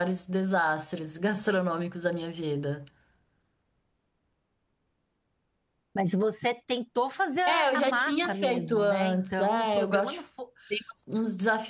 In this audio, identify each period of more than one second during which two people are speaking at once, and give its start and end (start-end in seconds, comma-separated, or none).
7.5-10.2